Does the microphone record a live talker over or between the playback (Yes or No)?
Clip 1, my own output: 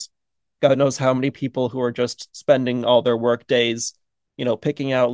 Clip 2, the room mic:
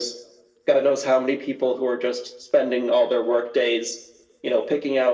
No